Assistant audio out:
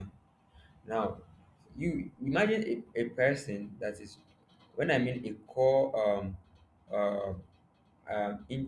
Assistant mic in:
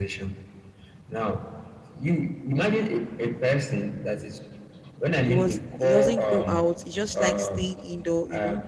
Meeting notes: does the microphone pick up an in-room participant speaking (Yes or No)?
Yes